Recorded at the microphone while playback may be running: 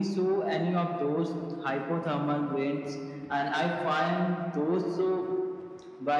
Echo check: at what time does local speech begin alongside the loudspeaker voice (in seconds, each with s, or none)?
none